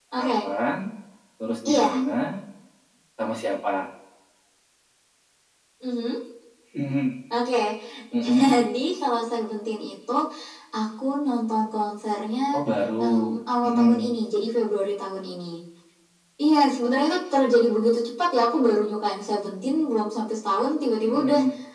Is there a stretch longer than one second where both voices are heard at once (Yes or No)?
No